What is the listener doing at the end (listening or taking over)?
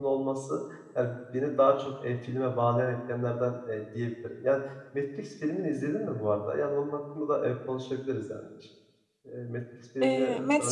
taking over